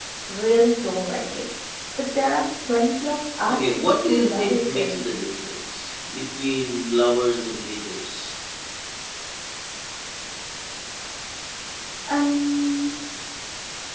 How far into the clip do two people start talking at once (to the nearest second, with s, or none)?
3 s